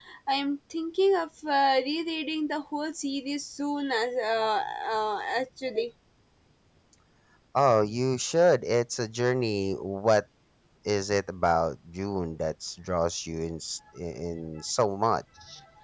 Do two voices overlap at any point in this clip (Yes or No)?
No